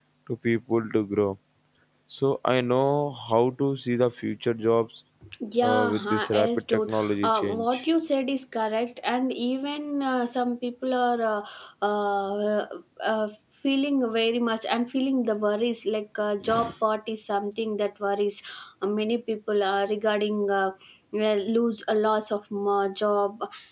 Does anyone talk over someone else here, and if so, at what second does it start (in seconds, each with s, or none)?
5.6 s